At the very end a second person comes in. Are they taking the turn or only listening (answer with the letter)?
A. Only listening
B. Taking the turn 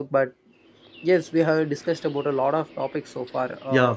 B